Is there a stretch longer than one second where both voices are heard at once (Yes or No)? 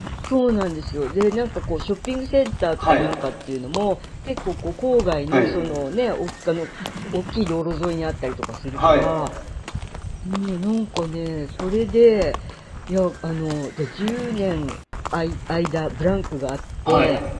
No